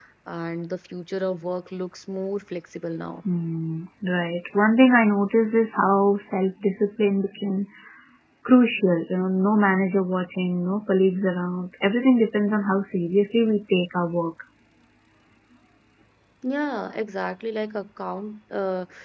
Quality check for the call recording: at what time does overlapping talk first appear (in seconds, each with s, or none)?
none